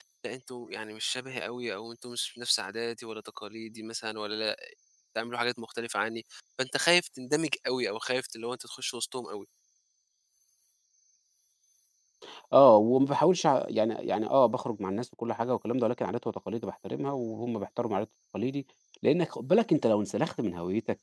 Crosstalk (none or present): none